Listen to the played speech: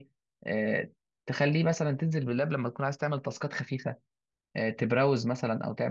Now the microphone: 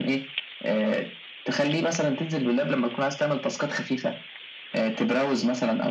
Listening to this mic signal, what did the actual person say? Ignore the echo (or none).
none